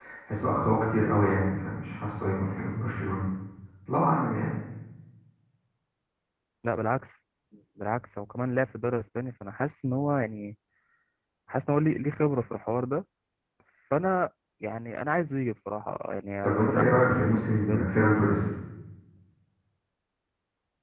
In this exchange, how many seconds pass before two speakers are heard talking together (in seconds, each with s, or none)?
16.4 s